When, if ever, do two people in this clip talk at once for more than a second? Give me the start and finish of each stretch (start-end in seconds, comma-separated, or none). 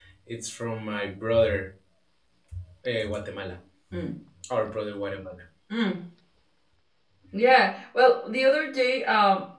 none